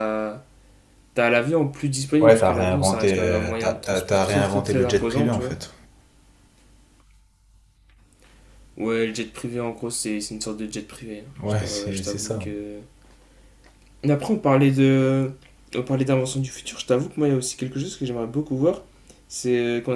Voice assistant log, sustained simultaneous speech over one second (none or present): present